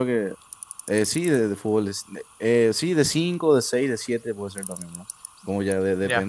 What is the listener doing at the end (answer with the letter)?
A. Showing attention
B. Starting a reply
A